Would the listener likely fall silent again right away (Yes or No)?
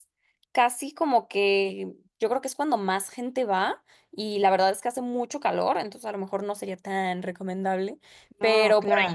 Yes